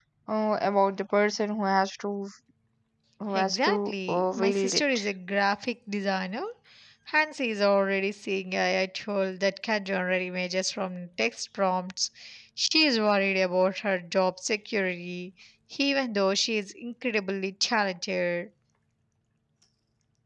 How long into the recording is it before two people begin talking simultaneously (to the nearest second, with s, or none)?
3 s